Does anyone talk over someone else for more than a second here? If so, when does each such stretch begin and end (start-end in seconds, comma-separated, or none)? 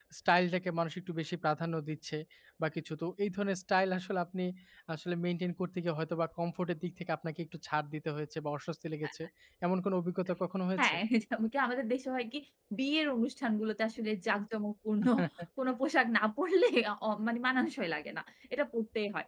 none